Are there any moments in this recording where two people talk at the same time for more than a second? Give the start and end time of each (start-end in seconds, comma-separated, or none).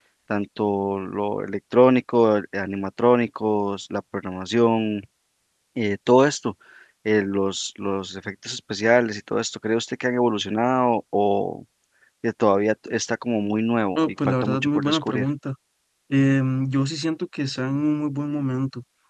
14.0-15.2